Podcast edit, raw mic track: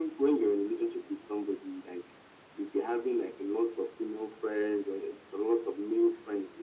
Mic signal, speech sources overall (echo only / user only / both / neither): echo only